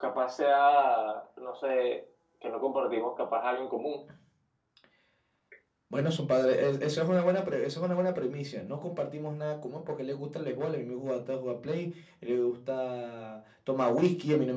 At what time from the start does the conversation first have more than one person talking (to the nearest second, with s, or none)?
none